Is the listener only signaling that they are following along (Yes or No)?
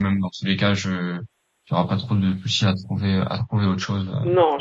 No